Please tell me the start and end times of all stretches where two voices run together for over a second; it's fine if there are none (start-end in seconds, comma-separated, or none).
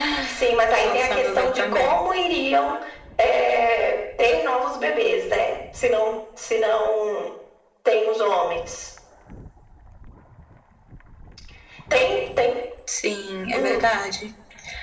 0.8-2.0